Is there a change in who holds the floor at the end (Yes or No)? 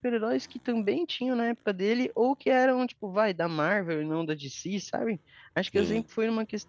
No